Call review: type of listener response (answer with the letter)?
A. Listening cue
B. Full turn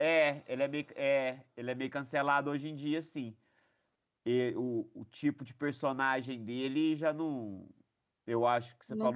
A